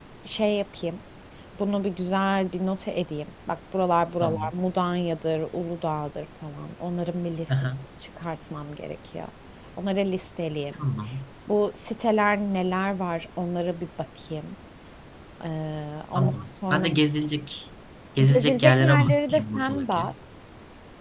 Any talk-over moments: Yes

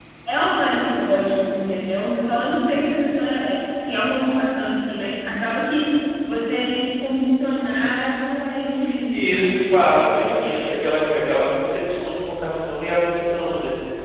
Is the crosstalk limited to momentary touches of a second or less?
Yes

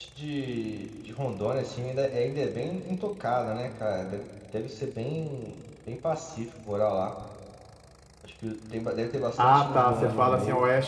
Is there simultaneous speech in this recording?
Yes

